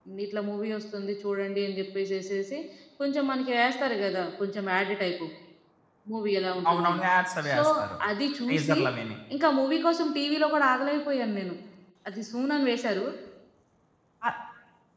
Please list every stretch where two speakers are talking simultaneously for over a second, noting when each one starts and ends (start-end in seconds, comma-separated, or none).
none